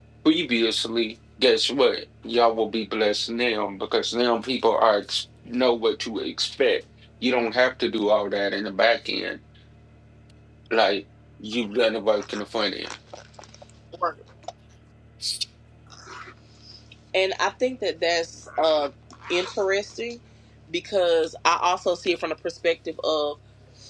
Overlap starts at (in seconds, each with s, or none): none